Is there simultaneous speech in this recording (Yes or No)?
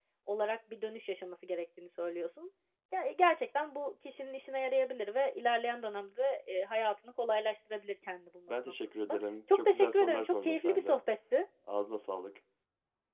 Yes